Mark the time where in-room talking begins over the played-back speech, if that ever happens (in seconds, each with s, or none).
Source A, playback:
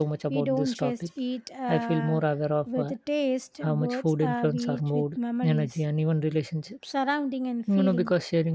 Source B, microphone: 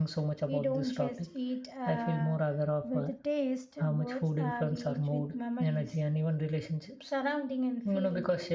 none